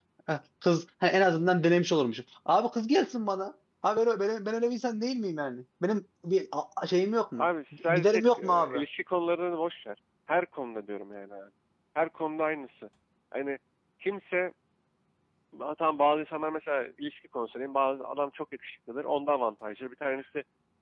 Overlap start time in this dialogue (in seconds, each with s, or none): 7.4 s